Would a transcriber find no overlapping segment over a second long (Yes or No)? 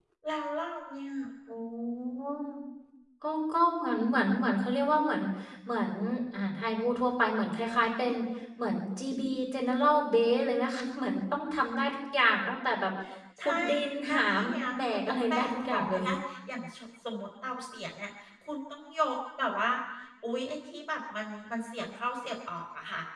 No